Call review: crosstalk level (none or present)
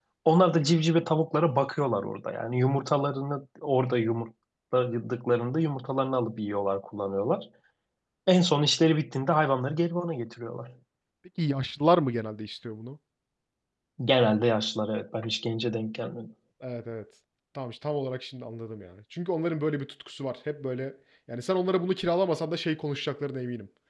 none